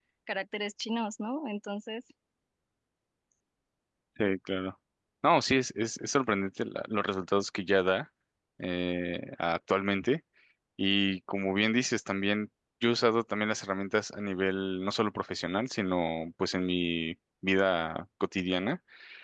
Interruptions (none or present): none